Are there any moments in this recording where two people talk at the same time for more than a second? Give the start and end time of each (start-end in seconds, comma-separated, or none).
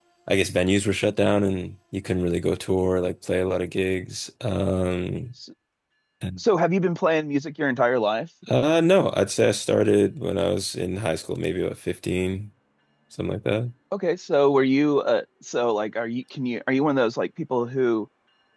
none